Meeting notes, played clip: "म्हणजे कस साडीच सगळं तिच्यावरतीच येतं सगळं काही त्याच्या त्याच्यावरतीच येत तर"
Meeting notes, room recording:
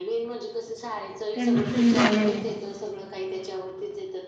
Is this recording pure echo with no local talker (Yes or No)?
No